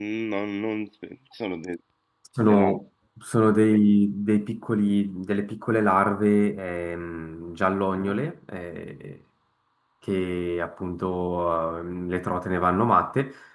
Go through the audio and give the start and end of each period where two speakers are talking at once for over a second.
none

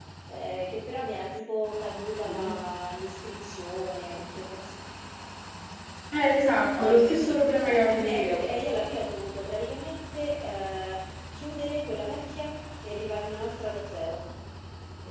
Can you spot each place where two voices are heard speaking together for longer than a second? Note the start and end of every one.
6.8-8.4

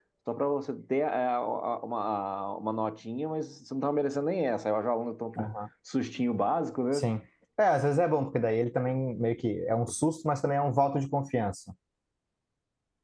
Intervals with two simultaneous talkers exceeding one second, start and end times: none

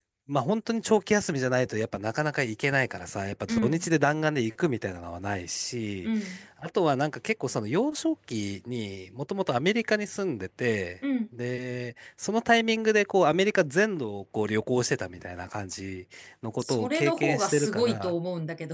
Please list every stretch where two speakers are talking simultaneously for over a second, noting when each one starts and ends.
16.6-18.1

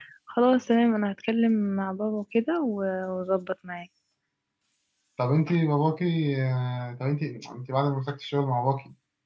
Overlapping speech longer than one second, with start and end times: none

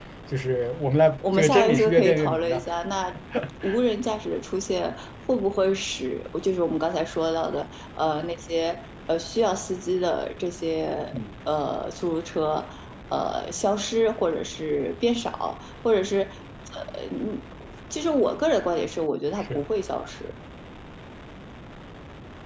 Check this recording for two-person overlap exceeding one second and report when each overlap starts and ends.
1.3-2.6

